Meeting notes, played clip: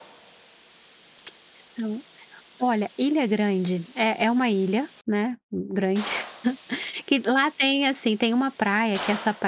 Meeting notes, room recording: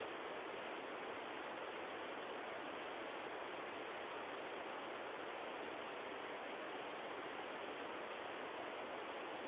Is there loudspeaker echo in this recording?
No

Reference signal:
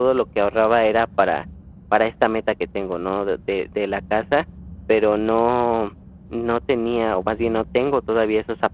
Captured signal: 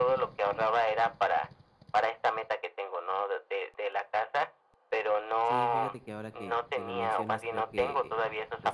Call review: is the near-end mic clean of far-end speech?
No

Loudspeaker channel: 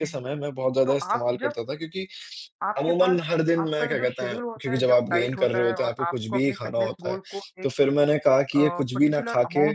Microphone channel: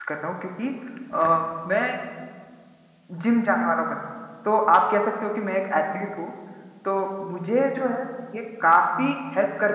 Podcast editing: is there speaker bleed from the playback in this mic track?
No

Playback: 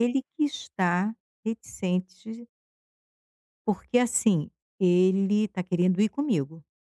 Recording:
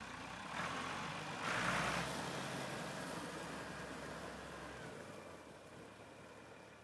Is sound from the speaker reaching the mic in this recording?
No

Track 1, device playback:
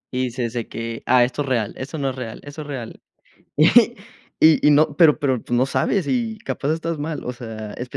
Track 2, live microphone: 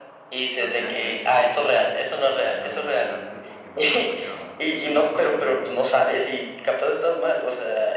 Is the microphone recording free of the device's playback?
No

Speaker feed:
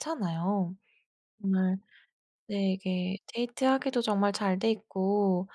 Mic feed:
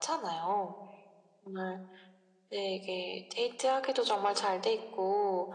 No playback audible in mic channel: No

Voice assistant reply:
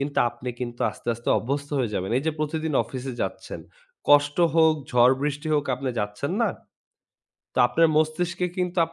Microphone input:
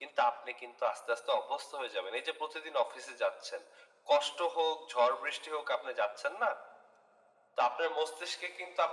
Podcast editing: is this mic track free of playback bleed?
No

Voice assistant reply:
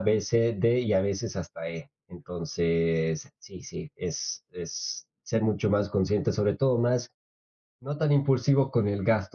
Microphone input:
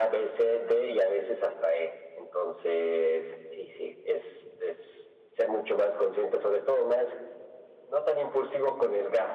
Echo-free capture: No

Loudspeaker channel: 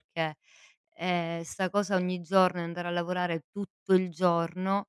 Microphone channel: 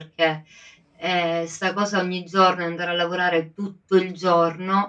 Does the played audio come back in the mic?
Yes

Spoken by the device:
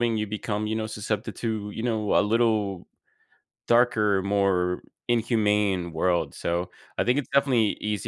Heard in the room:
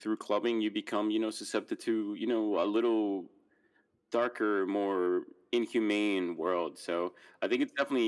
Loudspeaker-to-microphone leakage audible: Yes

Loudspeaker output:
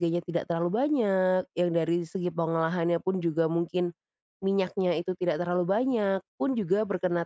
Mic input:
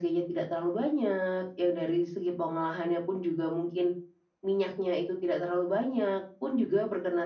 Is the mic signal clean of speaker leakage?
No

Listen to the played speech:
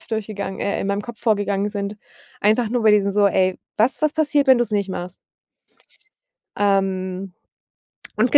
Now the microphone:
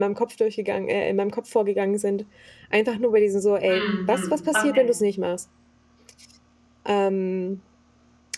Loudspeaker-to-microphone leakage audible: Yes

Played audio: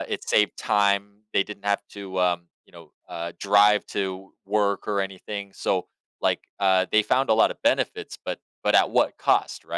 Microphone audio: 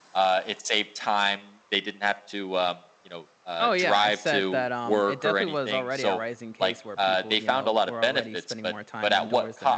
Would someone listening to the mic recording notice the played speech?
Yes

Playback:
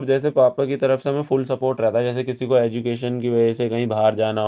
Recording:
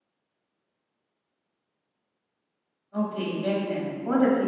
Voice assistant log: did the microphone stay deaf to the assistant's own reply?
Yes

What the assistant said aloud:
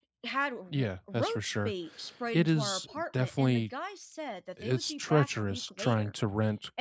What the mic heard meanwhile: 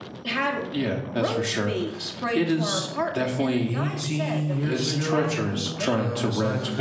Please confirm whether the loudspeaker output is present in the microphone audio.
Yes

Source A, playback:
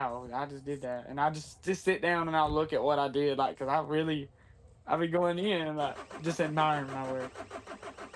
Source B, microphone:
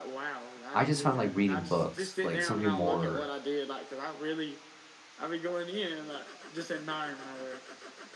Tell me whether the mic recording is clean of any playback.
No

